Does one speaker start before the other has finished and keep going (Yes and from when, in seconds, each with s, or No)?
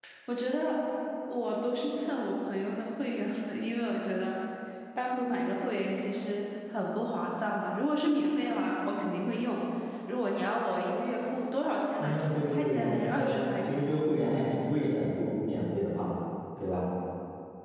Yes, from 12.0 s